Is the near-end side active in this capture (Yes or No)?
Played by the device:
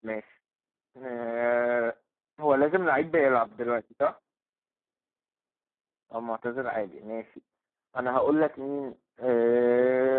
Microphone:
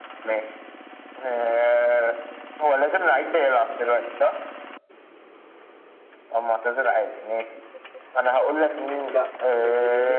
Yes